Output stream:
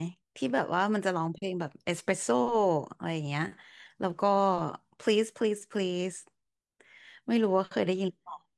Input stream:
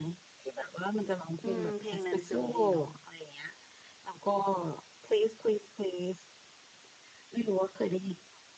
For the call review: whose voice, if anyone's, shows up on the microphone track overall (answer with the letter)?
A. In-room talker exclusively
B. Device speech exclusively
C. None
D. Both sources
D